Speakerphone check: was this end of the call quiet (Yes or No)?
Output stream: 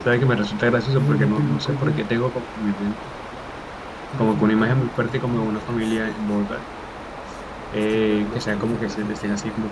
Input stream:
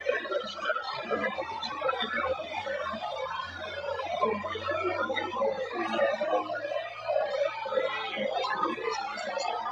Yes